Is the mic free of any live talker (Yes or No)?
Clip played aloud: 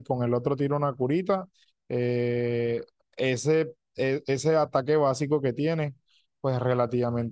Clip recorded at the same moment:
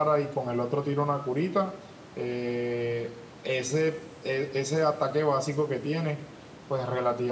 Yes